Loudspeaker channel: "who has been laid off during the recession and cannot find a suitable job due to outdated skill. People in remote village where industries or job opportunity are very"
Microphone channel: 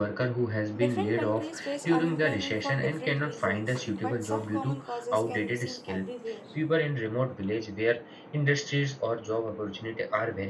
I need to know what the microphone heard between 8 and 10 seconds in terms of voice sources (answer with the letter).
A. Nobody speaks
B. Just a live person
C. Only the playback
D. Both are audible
C